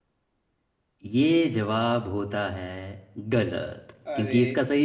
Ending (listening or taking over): listening